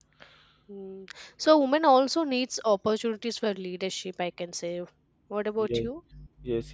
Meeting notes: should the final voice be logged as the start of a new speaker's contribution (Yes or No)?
Yes